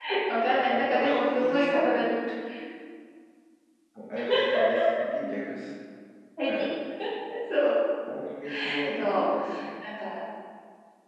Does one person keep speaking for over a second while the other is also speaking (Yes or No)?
Yes